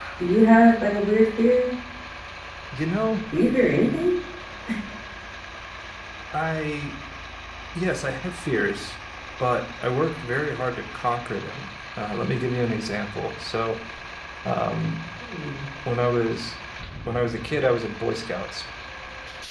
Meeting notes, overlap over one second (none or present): none